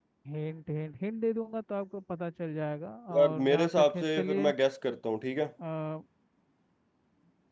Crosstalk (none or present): present